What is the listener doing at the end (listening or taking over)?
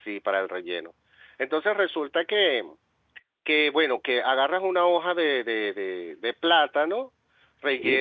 listening